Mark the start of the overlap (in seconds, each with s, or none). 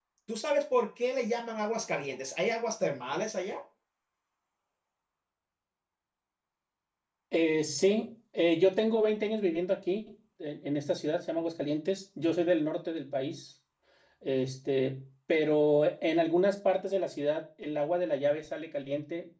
none